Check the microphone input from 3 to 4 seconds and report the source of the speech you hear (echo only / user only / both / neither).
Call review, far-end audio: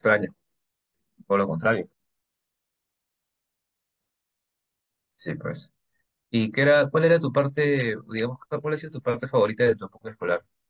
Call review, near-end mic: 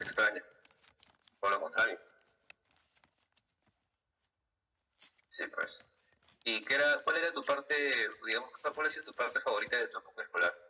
neither